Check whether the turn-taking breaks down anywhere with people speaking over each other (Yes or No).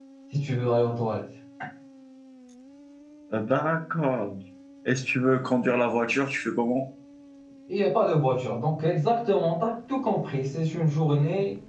No